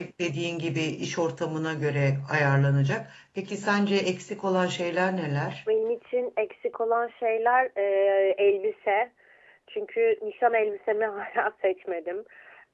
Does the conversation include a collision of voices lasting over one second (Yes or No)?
No